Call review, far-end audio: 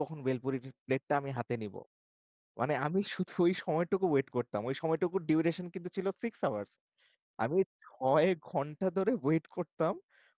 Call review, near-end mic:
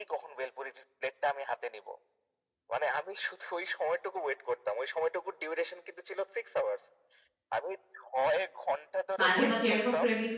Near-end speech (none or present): present